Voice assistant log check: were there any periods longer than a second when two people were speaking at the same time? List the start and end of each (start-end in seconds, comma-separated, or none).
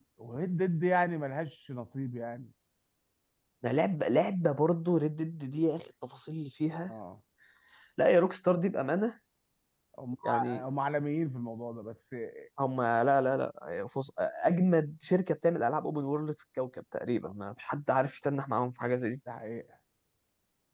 none